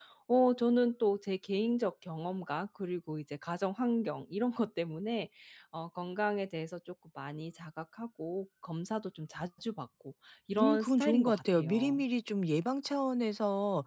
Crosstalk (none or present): present